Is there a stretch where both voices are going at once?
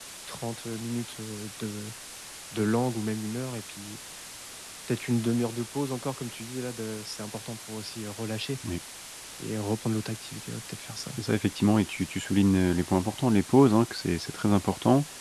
No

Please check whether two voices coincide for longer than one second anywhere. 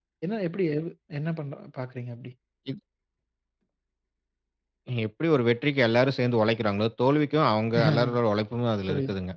No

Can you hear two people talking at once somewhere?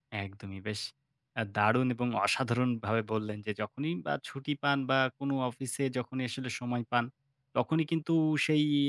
No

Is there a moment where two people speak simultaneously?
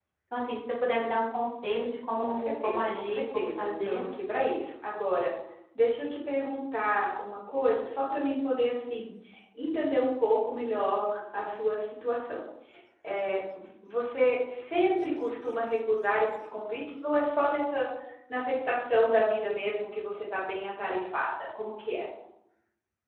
Yes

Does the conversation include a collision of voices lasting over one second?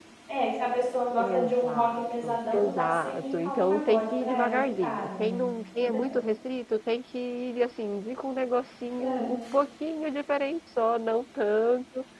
Yes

